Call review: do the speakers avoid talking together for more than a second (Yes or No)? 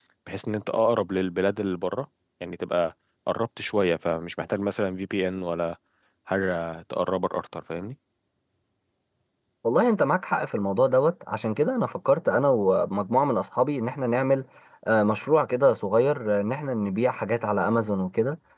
Yes